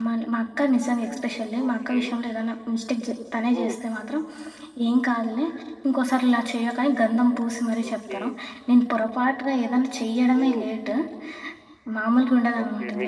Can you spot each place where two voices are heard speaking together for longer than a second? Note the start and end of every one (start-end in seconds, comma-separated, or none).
none